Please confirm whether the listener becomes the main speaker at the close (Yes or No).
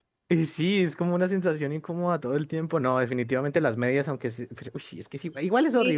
Yes